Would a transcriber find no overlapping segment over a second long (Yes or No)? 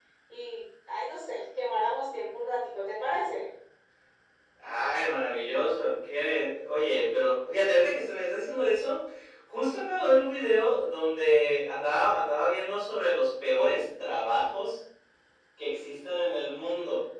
Yes